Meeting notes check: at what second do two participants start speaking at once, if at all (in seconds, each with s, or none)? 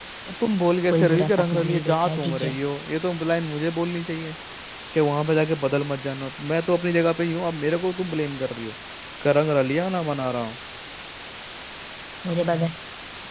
0.5 s